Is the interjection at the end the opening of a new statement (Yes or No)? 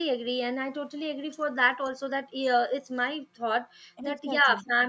No